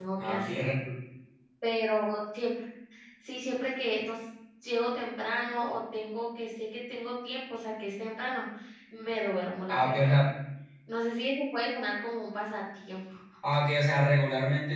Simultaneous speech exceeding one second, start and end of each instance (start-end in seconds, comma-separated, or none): none